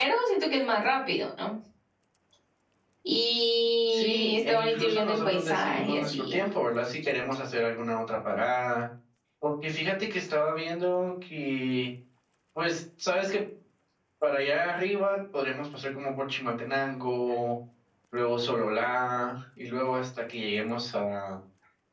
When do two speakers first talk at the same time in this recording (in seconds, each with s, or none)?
3.9 s